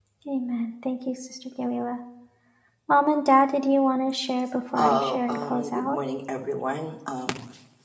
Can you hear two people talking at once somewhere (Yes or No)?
Yes